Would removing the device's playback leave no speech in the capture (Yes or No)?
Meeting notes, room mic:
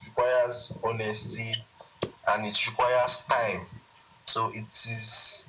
Yes